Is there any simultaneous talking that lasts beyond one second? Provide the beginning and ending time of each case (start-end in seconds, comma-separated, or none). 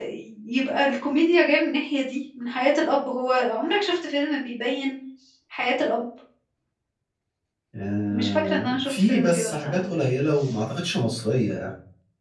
8.1-9.8